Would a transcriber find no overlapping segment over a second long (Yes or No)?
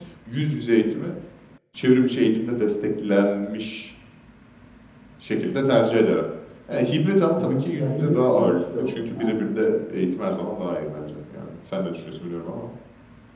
No